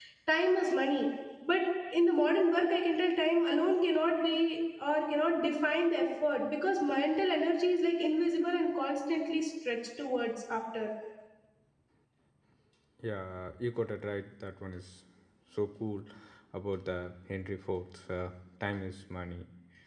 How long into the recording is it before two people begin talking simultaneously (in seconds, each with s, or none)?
none